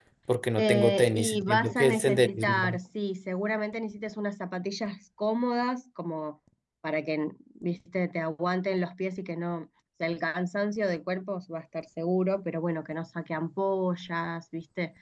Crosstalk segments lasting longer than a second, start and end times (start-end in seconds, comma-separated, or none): 0.6-2.8